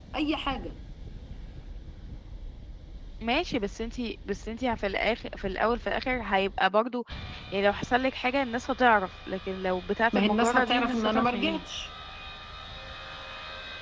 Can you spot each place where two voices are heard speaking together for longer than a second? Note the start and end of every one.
10.1-11.6

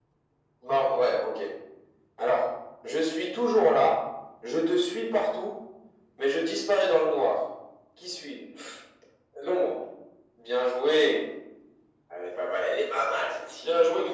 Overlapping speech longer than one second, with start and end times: none

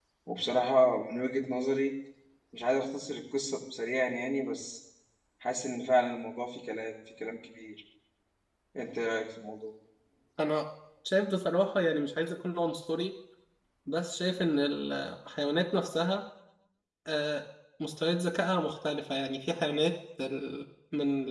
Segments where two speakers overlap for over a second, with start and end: none

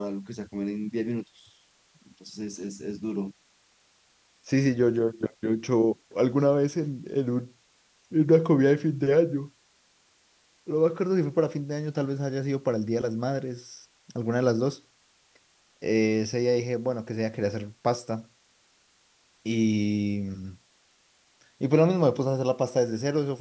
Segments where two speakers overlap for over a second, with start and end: none

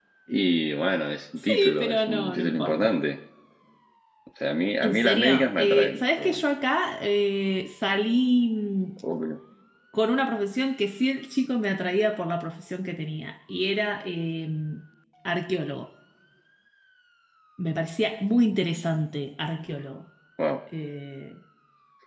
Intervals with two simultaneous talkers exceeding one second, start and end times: 1.5-2.9, 4.8-6.4

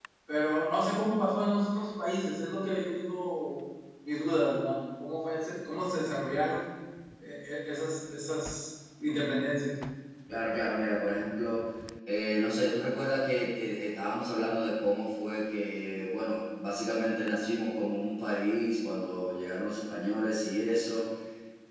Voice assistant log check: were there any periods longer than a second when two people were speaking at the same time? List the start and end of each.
none

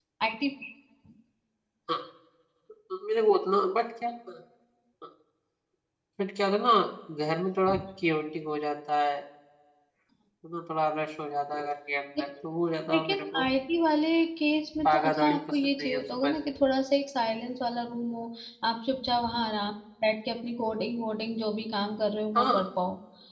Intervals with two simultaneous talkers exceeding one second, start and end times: 14.8-16.4

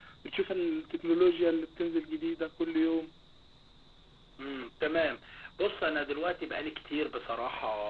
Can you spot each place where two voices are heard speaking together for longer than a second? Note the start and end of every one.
none

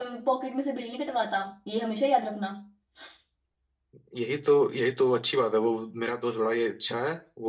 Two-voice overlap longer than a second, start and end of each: none

